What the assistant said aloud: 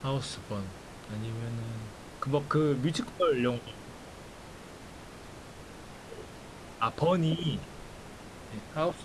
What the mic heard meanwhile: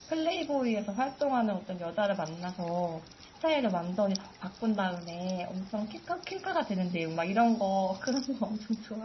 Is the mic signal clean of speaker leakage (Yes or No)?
Yes